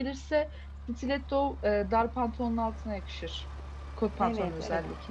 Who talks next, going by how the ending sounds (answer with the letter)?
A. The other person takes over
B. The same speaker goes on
A